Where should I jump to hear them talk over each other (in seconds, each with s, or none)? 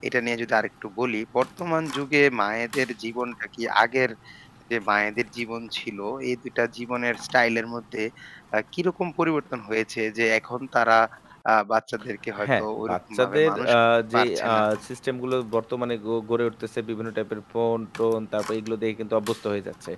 12.5 s